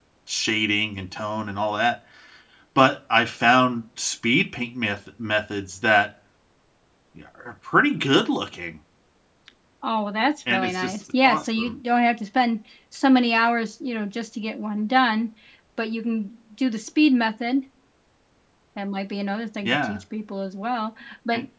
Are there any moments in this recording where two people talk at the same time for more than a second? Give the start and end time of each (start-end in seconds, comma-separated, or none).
10.5-11.8